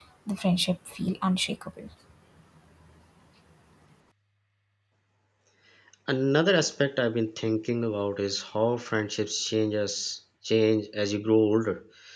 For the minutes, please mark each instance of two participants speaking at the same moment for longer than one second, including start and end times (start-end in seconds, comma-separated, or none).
none